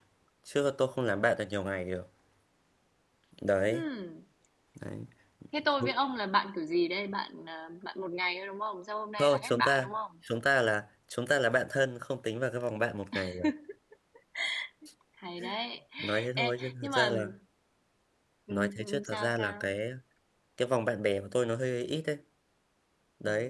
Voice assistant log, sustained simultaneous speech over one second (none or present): present